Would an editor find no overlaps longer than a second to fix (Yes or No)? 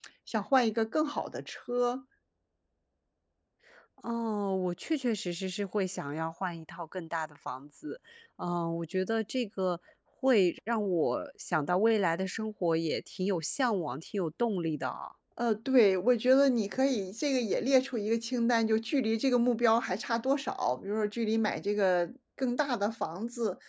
Yes